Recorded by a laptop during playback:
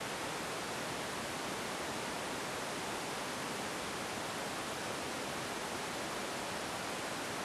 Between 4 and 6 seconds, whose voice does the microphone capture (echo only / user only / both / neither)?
neither